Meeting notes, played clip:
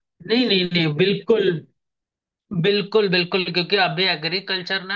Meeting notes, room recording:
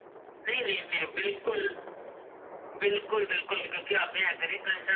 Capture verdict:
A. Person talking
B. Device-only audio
B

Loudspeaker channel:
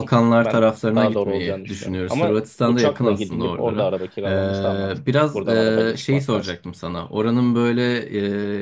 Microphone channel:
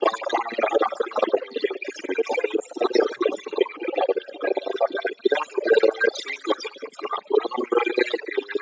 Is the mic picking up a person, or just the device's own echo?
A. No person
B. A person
A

